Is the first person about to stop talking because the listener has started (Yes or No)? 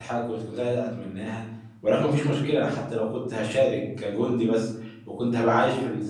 No